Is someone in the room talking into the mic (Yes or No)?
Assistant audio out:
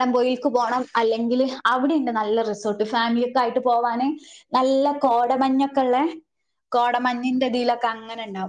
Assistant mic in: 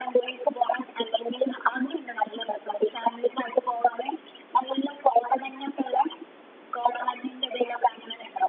No